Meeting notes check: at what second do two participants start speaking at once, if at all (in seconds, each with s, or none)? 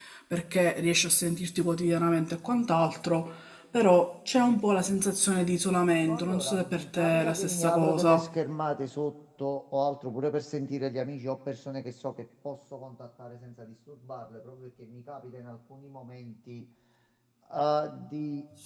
6.0 s